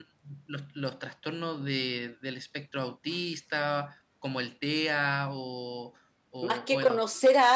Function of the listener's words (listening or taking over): taking over